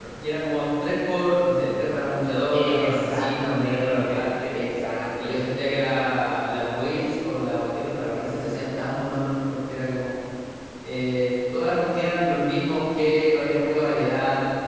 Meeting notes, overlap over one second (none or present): present